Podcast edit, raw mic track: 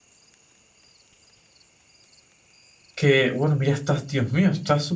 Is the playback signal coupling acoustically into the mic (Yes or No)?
No